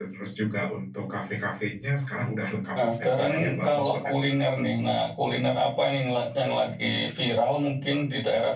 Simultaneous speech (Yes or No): Yes